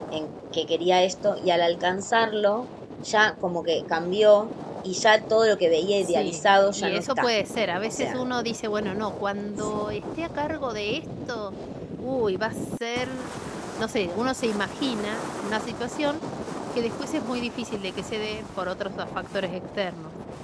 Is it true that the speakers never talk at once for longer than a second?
No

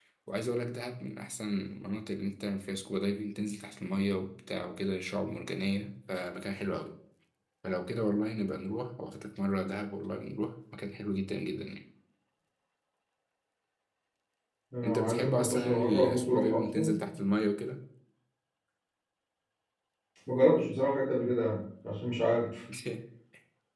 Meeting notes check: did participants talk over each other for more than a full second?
Yes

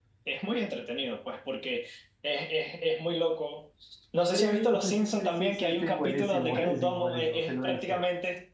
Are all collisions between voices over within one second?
No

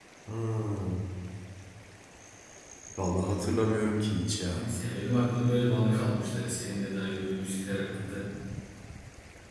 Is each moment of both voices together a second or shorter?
Yes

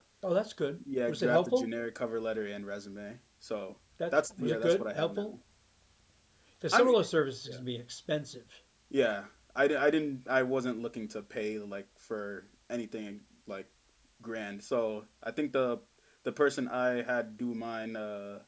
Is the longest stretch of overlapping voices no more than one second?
No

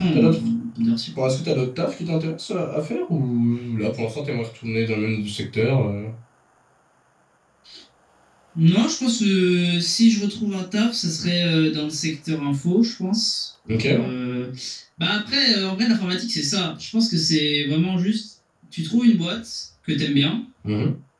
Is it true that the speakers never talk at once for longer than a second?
Yes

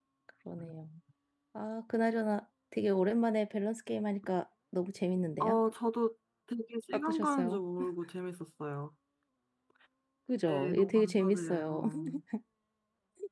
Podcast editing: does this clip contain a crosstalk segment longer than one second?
Yes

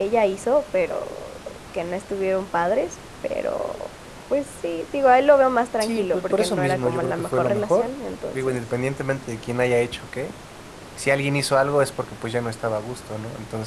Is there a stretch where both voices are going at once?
Yes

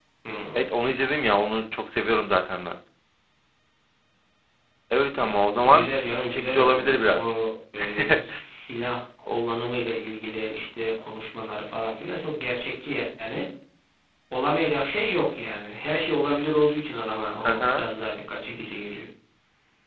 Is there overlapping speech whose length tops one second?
Yes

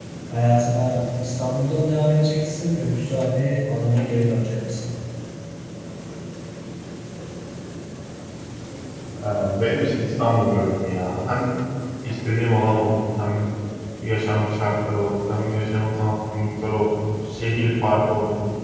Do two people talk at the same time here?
No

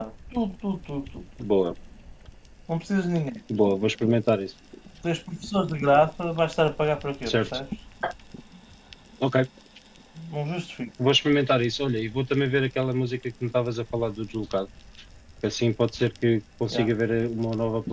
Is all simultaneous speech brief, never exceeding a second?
Yes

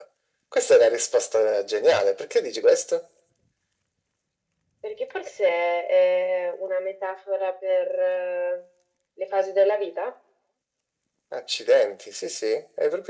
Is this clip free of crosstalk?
Yes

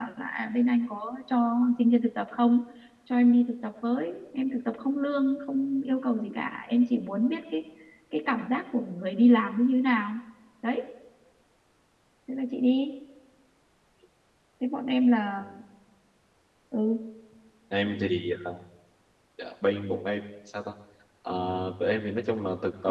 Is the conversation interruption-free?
Yes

